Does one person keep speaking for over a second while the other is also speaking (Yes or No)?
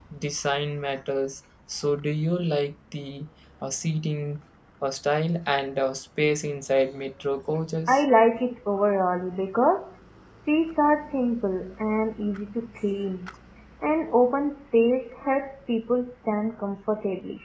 No